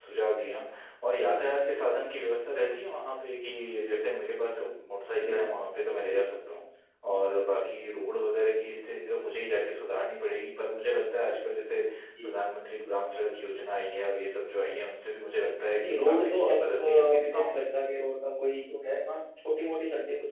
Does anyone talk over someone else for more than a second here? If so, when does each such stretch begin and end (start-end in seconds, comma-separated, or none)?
15.8-17.6